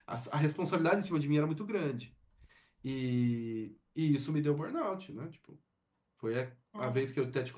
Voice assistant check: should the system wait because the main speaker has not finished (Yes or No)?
Yes